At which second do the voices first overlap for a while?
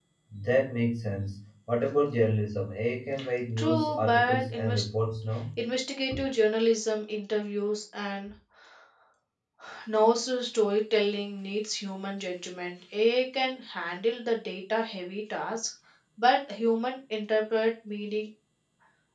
4 s

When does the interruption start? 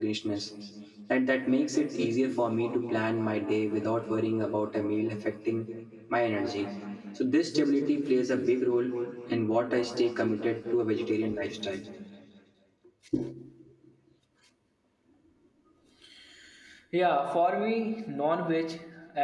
none

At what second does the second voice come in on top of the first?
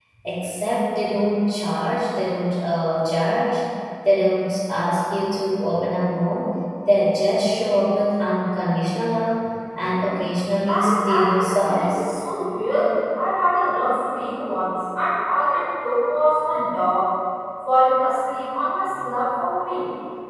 11 s

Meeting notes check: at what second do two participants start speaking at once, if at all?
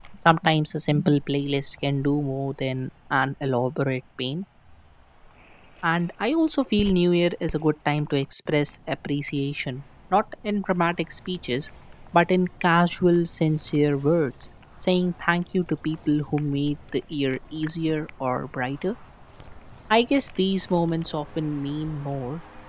none

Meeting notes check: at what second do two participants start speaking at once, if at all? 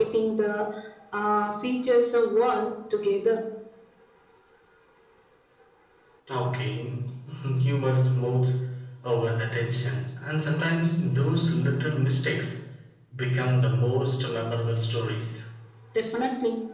none

